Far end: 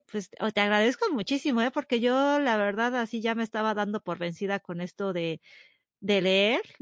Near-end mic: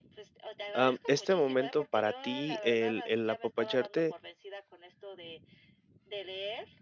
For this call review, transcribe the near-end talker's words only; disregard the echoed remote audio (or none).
am, este momento para ti, el el apapacharte